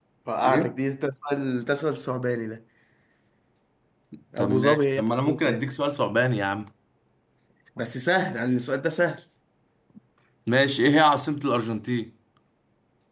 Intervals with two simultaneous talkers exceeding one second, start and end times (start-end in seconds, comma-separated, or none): 4.4-5.7